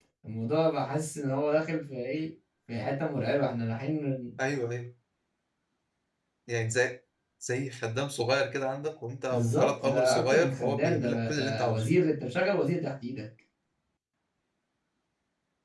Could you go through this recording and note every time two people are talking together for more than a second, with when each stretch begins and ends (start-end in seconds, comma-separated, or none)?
9.3-11.9